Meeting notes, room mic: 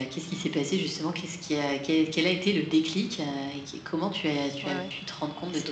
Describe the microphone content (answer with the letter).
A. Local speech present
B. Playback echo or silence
A